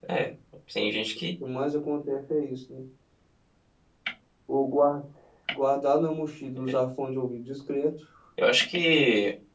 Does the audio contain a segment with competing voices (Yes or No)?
No